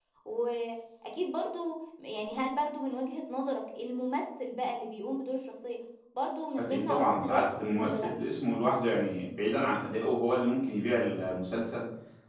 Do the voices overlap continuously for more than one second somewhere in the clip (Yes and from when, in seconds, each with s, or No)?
Yes, from 6.5 s